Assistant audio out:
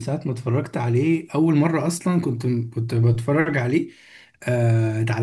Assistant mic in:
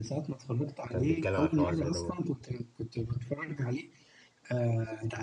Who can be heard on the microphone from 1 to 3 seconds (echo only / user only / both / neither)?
both